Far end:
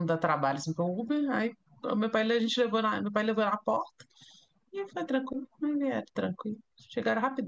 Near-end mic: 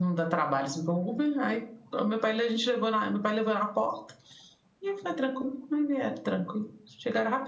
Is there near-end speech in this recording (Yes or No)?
No